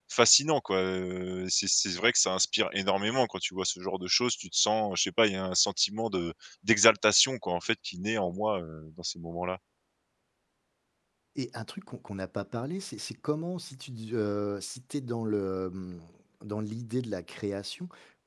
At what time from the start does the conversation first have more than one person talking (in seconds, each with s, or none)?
none